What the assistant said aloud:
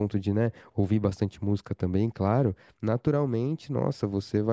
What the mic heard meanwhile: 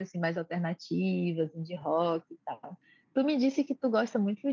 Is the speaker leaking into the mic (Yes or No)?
No